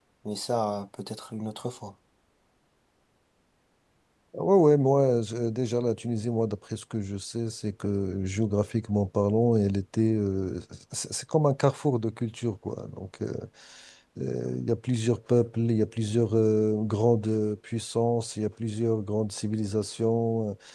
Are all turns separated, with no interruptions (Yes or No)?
Yes